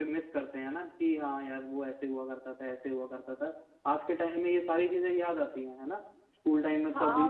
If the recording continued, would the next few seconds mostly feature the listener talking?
Yes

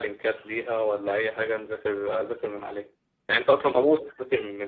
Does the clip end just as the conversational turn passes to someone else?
No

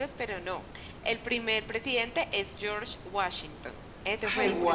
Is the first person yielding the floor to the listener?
Yes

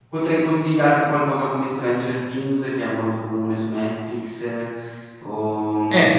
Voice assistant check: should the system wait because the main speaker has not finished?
No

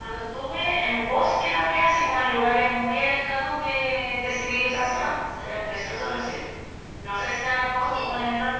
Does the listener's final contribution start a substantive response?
No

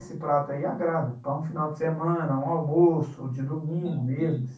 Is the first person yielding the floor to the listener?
No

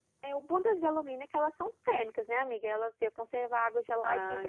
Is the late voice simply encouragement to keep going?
No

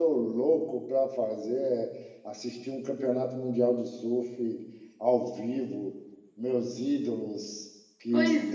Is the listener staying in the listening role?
Yes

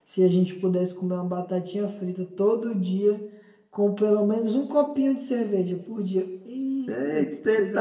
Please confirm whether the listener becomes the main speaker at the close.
Yes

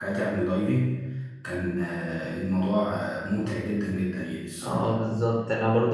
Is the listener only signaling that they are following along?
No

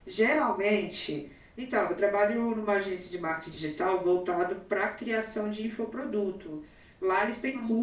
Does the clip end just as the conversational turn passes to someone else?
No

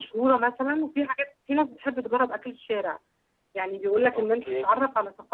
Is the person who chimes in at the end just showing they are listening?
Yes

